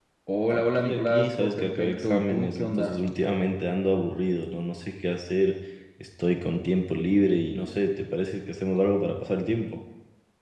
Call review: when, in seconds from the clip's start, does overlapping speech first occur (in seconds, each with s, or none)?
0.5 s